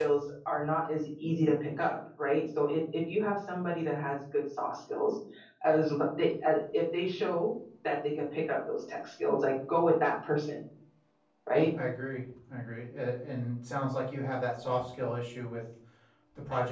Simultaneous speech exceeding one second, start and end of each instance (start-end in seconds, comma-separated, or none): none